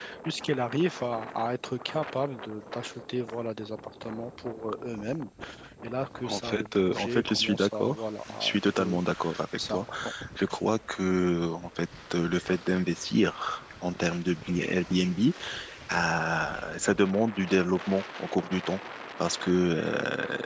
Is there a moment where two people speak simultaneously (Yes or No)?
Yes